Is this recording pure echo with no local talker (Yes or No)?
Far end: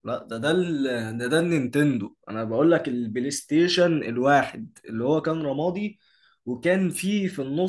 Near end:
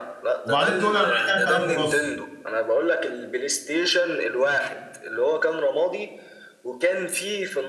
No